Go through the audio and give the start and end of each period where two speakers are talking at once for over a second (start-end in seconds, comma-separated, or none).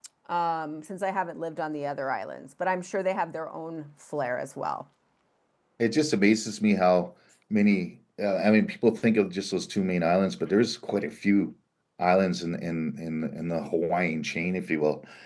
none